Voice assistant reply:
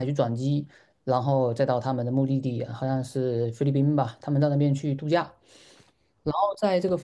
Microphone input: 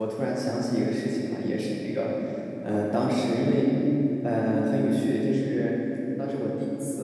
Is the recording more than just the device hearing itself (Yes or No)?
Yes